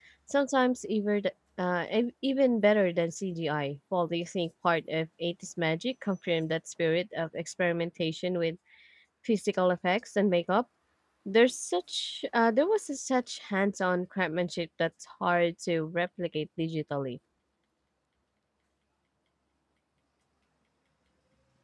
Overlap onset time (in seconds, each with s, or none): none